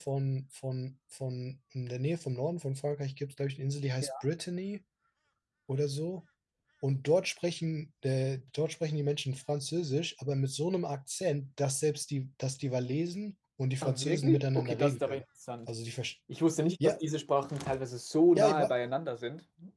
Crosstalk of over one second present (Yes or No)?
Yes